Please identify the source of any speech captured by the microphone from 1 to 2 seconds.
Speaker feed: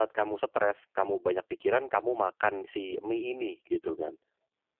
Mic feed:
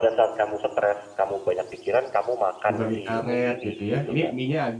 echo only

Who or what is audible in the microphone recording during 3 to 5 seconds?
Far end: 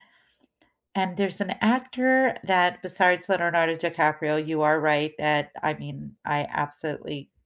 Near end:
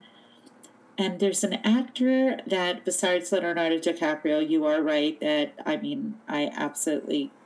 echo only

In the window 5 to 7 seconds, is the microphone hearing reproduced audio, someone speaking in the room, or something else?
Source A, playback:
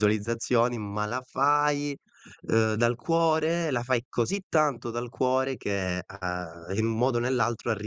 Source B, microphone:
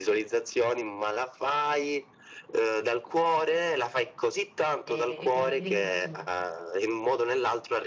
both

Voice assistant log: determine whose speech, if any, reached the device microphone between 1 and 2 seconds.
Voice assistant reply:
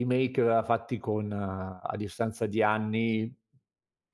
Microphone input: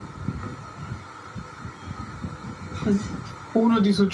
neither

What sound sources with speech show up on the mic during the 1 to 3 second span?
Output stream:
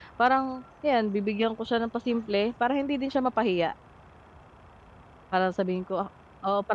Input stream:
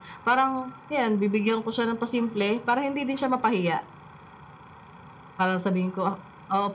echo only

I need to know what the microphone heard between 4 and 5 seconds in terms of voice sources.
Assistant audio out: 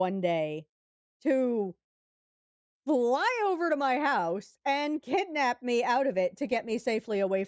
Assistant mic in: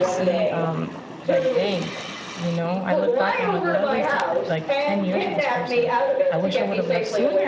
both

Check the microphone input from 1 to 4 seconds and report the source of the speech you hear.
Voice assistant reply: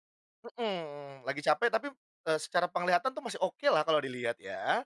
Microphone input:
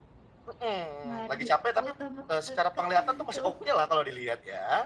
both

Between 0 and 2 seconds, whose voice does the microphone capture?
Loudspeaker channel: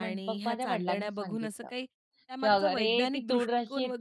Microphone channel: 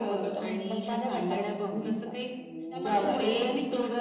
echo only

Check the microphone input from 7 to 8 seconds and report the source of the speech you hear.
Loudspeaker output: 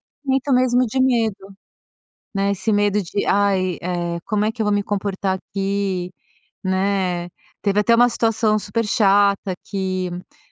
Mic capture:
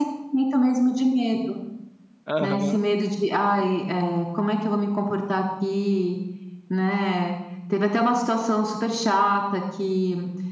echo only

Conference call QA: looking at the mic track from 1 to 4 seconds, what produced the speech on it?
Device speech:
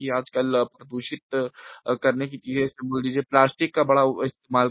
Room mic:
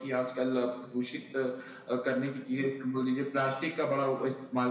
echo only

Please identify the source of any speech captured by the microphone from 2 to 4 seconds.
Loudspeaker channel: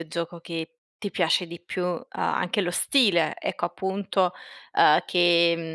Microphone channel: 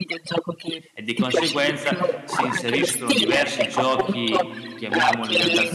both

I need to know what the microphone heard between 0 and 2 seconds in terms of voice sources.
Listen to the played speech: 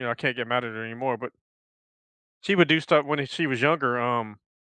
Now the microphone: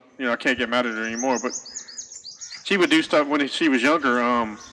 echo only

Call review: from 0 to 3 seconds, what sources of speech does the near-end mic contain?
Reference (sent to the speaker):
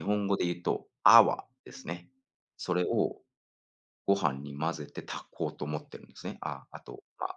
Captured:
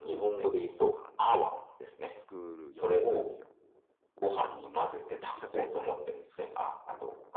both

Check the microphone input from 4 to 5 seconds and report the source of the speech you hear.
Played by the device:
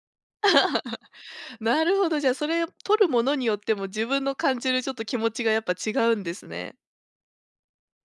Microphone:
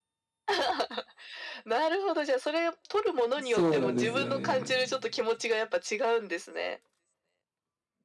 both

